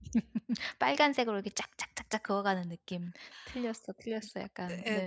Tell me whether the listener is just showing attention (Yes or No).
No